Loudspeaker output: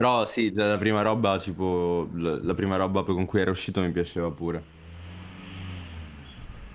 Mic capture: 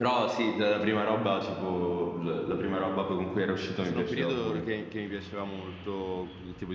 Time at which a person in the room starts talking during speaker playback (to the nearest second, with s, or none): 4 s